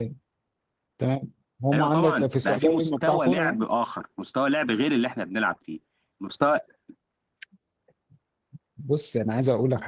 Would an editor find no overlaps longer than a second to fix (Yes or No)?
No